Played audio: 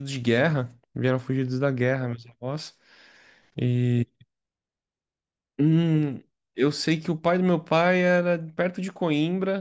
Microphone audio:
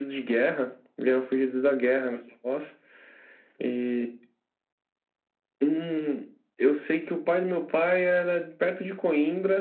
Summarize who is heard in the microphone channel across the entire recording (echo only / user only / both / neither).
echo only